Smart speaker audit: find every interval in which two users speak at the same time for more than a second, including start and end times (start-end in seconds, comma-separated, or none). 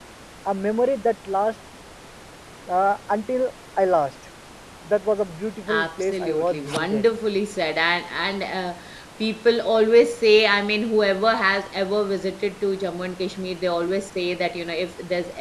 5.7-7.0